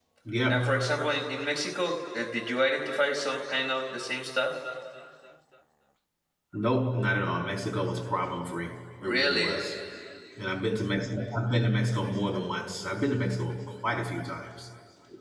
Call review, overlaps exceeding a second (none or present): none